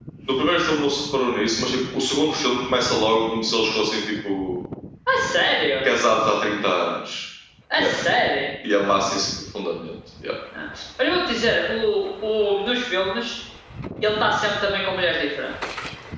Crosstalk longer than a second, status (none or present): none